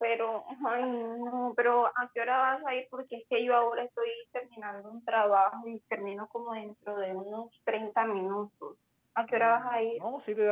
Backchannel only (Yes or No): No